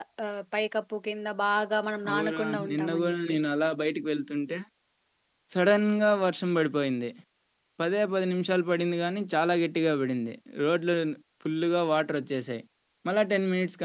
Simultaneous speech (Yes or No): Yes